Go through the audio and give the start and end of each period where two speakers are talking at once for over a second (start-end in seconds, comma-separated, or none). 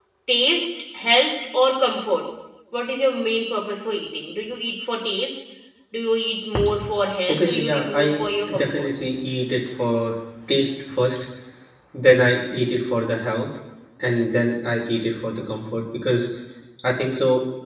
7.3-8.9